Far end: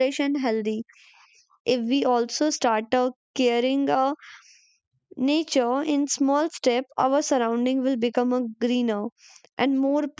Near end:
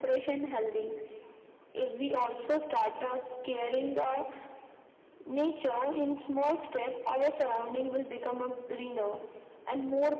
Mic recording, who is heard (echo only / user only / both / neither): echo only